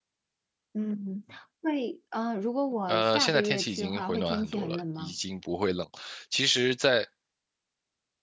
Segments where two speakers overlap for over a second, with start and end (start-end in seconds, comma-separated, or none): 2.9-5.1